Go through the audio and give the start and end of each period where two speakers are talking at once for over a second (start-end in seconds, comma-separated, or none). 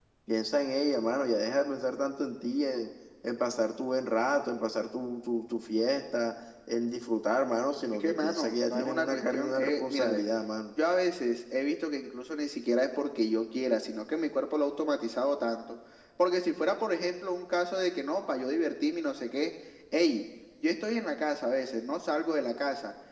8.0-10.2